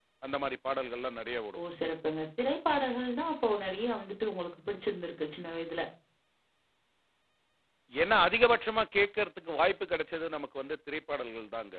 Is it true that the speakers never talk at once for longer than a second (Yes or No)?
Yes